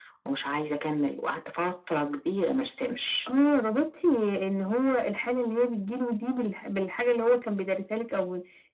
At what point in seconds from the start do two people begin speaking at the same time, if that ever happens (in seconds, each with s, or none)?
none